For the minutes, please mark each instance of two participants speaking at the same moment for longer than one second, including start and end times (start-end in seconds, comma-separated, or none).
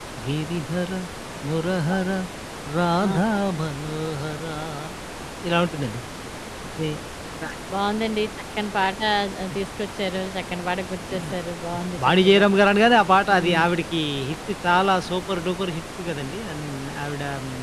none